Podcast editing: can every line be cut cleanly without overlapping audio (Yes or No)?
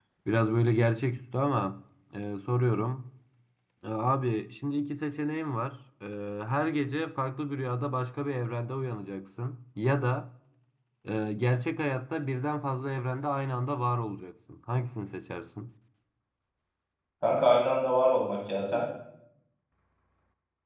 Yes